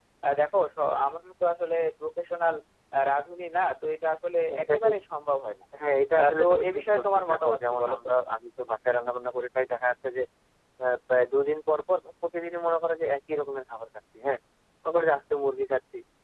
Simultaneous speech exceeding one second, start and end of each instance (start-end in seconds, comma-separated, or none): 6.2-8.1